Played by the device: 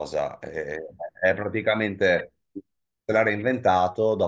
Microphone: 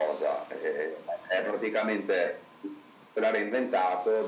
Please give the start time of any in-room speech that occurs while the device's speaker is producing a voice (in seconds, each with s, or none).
none